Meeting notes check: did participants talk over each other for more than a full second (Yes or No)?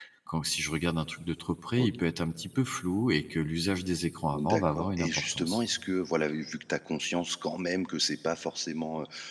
Yes